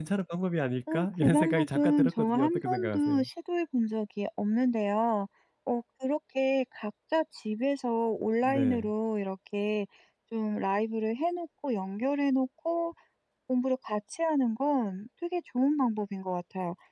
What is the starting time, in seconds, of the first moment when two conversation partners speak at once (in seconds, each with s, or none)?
0.9 s